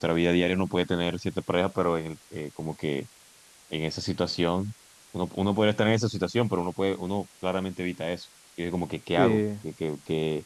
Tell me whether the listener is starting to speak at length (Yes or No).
No